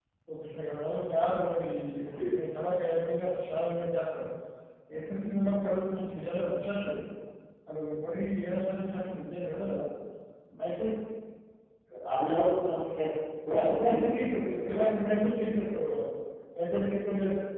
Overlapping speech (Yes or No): Yes